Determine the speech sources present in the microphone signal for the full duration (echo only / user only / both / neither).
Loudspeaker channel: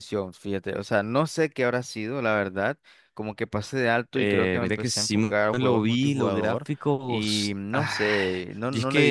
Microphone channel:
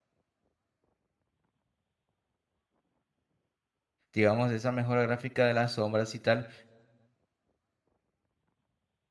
user only